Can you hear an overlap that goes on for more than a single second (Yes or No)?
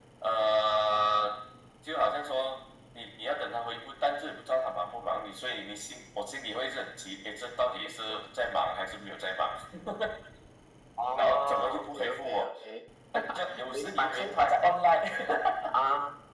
Yes